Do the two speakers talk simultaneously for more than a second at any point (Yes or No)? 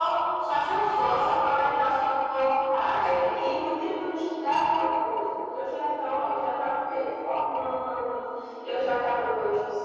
No